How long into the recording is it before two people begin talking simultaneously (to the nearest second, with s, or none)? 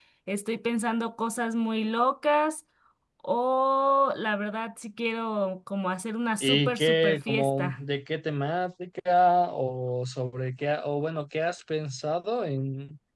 6 s